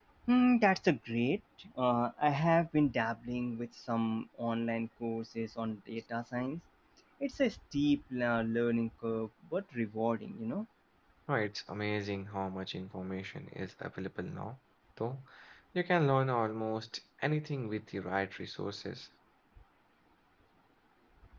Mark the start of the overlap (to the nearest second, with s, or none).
none